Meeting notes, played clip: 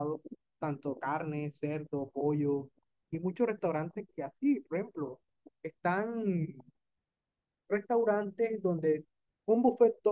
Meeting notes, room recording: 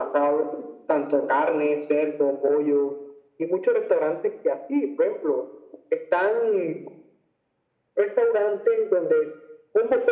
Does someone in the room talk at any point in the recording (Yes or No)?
No